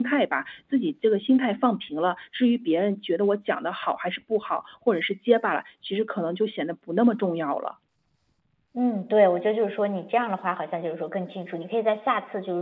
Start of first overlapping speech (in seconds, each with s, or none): none